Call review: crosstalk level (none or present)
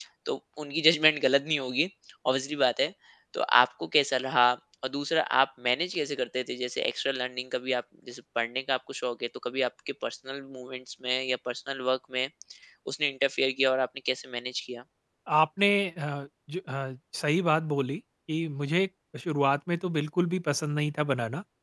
none